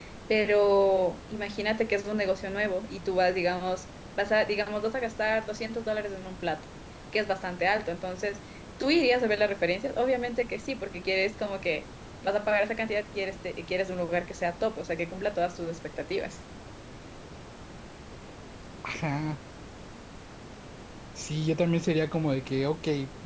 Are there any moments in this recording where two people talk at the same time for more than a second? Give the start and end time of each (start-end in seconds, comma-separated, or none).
none